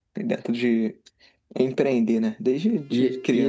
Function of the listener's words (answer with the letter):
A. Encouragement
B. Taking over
B